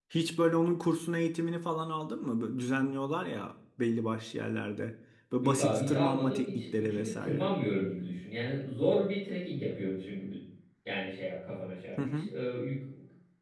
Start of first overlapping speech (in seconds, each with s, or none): 5.4 s